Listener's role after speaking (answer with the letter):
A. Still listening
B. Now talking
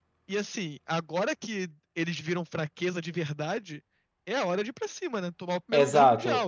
B